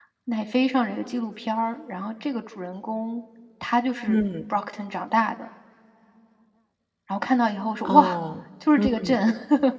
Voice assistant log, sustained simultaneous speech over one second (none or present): none